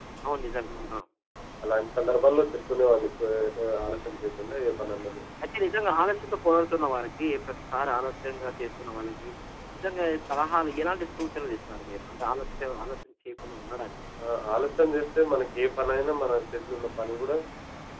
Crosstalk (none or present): none